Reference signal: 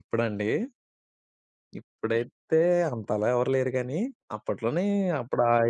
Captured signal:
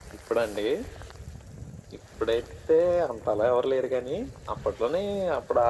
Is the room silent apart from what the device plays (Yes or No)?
Yes